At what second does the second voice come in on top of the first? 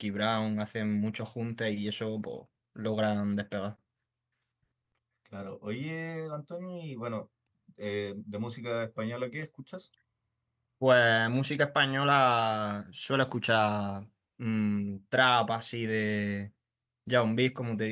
none

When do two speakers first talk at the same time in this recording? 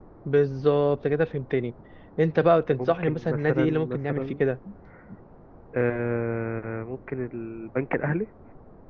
3 s

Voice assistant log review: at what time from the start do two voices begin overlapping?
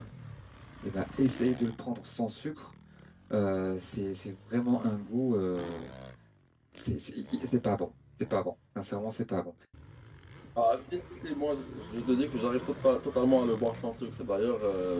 none

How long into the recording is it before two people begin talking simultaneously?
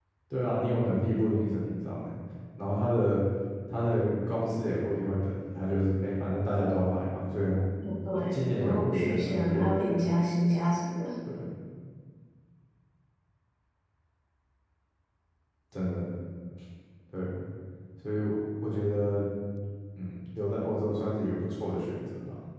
8 s

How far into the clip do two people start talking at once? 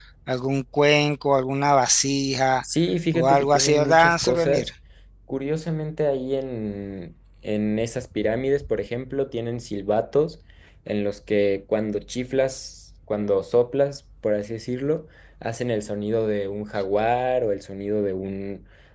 3 s

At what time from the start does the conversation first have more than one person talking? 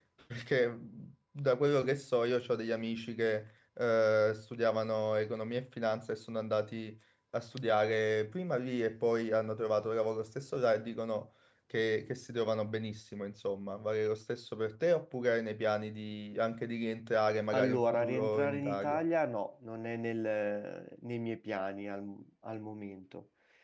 18 s

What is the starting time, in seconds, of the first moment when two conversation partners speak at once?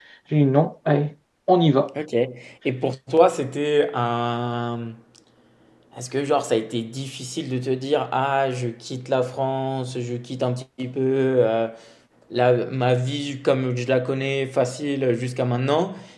none

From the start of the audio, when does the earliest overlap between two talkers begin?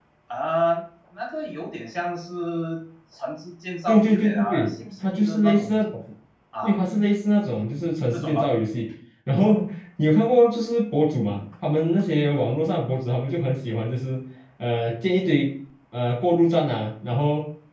4 s

